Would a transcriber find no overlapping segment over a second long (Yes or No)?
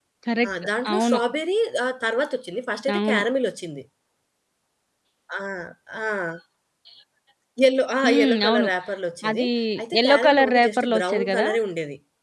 No